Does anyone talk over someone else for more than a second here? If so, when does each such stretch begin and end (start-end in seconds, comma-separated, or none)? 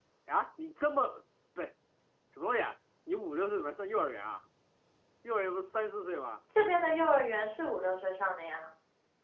none